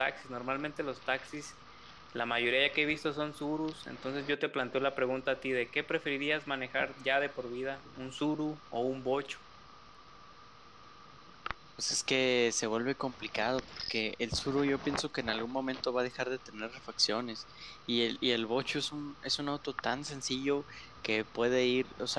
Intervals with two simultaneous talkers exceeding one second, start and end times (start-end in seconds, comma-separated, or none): none